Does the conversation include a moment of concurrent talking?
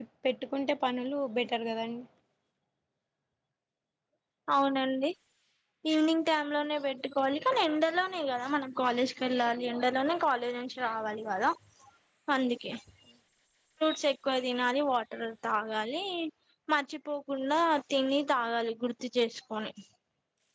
No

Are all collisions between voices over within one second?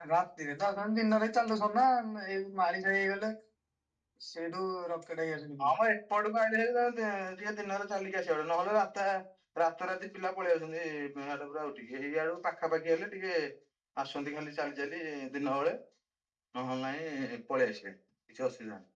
Yes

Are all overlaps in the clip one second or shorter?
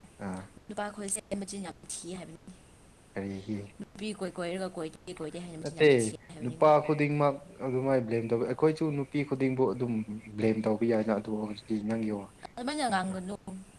Yes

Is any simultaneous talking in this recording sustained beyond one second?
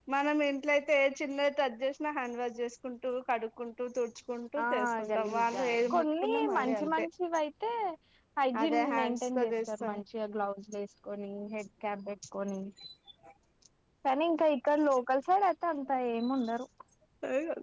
Yes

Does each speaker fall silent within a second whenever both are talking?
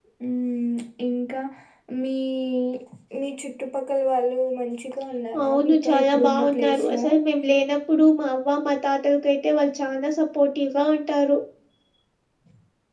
No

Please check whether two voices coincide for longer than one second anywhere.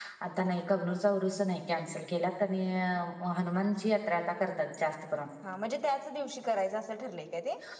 No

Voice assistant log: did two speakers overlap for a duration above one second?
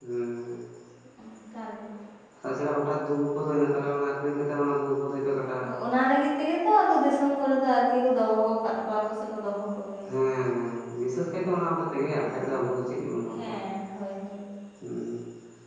No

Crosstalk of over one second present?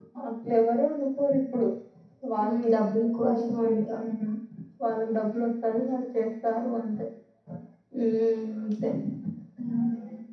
Yes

